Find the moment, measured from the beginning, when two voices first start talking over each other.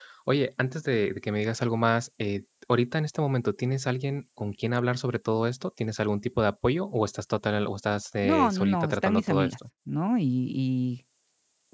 8.2 s

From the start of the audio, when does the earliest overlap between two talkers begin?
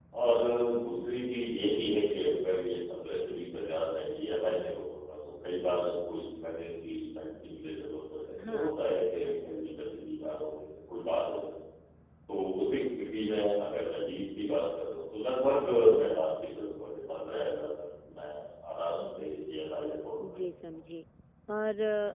8.4 s

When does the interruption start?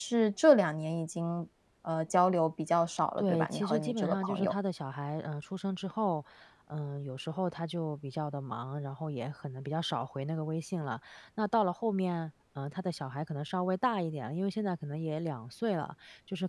3.2 s

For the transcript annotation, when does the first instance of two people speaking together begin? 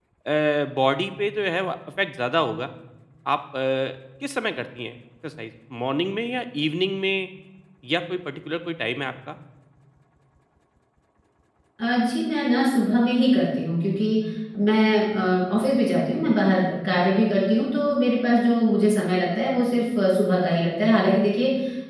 none

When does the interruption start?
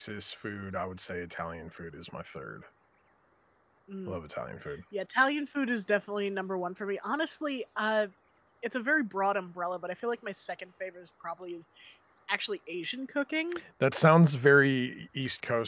none

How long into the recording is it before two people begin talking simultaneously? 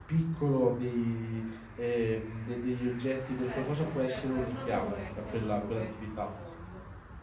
3.5 s

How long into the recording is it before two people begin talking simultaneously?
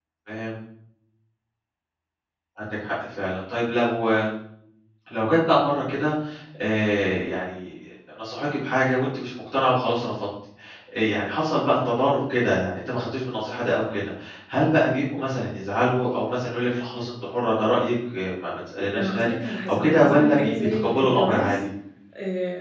18.9 s

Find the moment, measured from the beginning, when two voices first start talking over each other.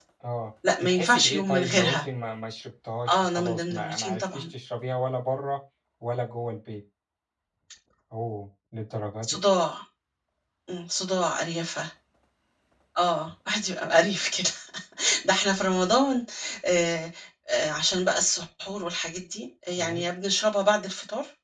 0.8 s

